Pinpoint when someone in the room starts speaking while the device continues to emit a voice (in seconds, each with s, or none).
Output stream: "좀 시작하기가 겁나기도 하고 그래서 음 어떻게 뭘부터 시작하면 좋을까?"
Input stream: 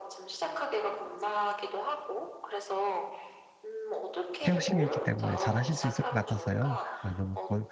4.5 s